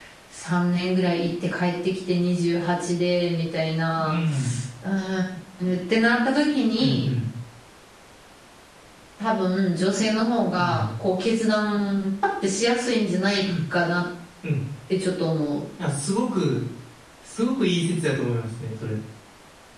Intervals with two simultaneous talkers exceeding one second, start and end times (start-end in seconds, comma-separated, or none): none